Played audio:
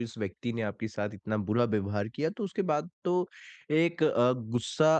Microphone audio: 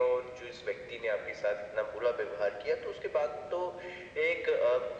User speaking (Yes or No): No